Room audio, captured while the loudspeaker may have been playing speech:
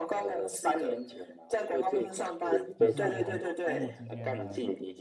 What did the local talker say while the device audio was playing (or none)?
就是很多生物之间呢，